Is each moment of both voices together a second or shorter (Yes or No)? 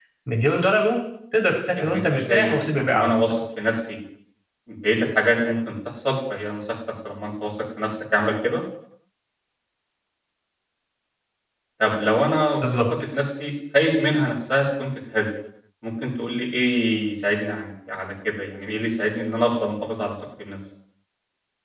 No